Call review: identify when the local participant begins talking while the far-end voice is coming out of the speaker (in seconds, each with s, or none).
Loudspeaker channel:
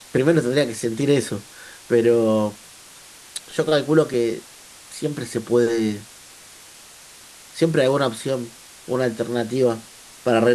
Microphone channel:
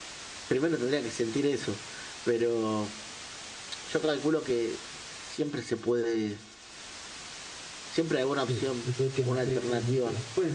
8.3 s